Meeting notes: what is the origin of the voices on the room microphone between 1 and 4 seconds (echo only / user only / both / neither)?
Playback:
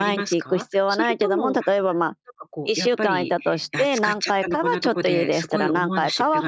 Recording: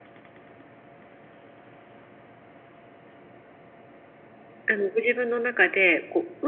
neither